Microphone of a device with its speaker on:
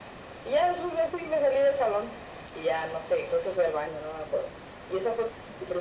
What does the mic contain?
echo only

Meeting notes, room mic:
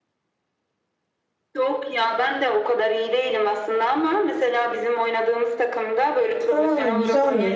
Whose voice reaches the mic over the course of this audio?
both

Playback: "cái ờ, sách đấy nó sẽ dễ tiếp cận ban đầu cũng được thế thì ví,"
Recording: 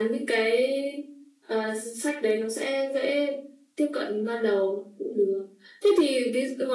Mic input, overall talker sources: echo only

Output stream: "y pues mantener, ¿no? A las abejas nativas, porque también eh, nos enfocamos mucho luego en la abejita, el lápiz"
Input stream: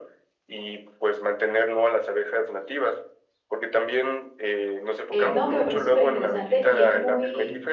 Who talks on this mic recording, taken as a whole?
both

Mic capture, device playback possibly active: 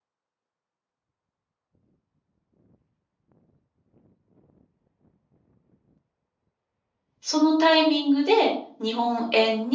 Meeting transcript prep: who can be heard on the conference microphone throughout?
user only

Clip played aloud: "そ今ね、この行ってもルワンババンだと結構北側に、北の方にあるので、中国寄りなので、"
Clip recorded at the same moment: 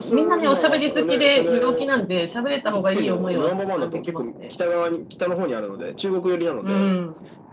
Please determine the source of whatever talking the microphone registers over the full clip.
both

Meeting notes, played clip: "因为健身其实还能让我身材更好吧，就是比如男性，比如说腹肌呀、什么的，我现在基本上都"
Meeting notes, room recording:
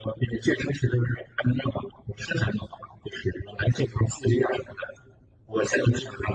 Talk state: echo only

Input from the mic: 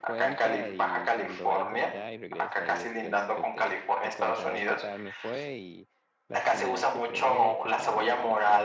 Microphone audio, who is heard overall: both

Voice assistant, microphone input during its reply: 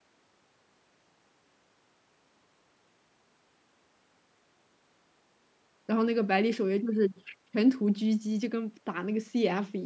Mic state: user only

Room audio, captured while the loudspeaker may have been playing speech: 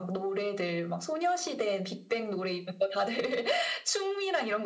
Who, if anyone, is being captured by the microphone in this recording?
echo only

